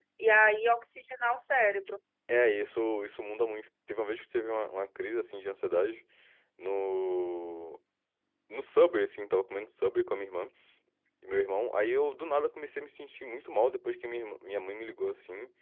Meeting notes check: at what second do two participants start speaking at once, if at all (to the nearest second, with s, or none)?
none